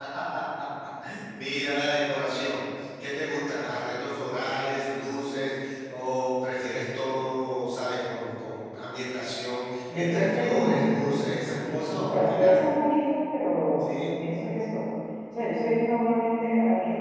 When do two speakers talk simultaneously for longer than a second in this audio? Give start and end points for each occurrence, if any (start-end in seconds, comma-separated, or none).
9.9-12.6